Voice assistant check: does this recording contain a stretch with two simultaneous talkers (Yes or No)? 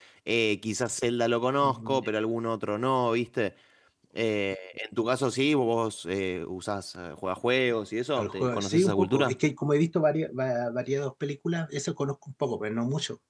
Yes